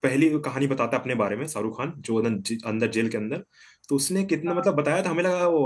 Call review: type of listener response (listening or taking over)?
listening